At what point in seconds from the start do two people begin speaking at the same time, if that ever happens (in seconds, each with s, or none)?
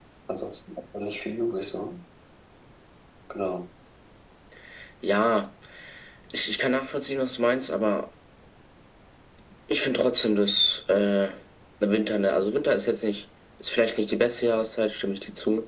none